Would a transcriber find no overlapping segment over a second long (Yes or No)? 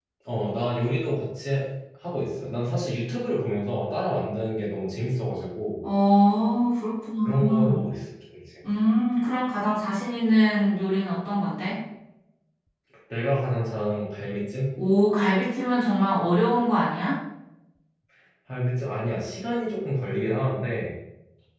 Yes